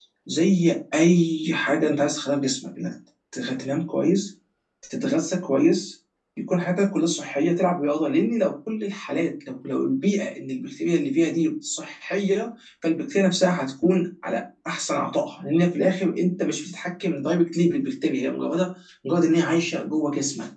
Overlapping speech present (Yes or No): No